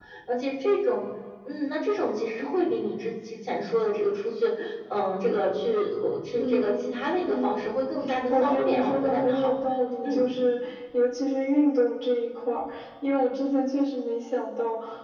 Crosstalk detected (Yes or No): Yes